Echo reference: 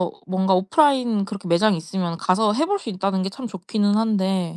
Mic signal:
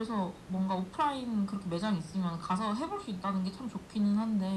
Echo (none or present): present